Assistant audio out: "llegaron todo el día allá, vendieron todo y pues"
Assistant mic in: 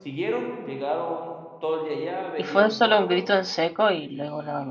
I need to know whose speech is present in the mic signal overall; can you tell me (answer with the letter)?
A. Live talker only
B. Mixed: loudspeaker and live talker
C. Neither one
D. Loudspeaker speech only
B